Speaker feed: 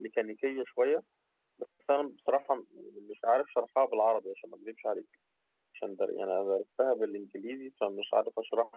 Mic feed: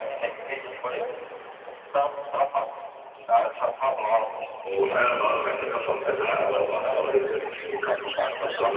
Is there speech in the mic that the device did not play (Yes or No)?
Yes